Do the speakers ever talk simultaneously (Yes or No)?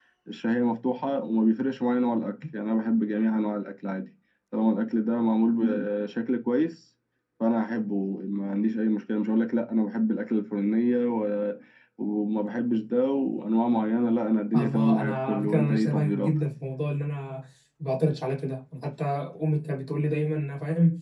Yes